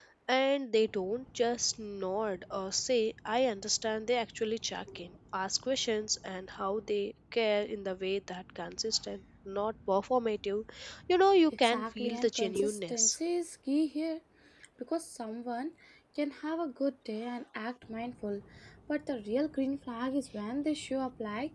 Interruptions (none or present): present